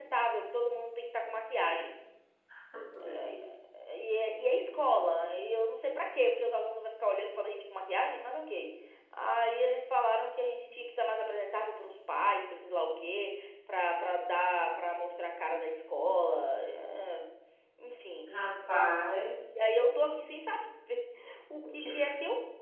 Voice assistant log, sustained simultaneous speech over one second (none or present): none